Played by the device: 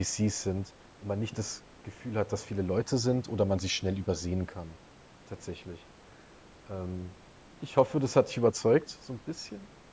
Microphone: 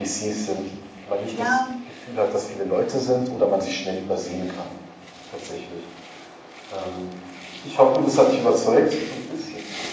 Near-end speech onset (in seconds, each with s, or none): 1.3 s